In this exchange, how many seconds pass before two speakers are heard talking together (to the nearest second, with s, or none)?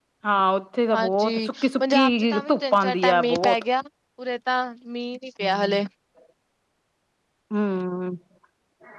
1 s